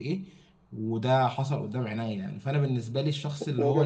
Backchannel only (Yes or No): Yes